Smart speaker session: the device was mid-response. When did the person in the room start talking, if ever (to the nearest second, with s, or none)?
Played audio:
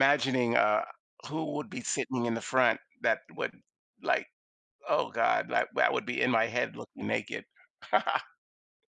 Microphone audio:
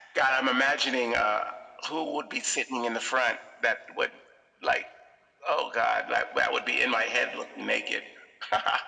none